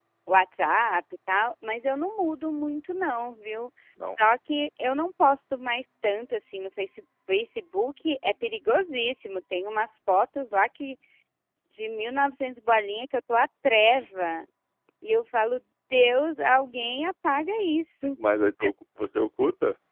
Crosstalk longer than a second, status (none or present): none